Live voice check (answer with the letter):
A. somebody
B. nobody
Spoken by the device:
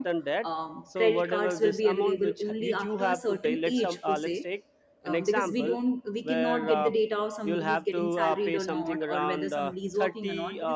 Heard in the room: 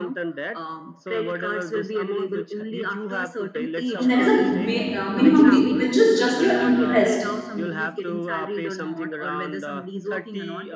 A